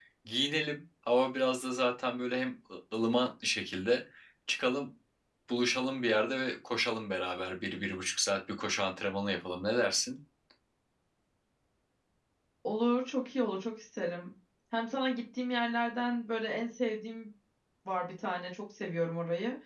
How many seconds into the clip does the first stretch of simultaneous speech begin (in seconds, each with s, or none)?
none